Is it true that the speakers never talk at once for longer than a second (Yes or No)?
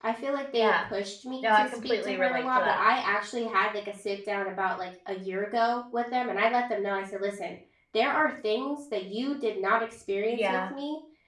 No